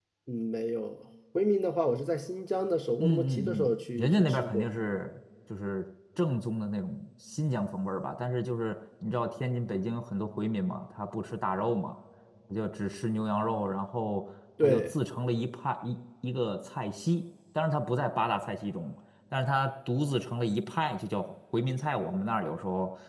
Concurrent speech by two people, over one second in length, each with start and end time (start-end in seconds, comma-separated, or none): 3.0-4.7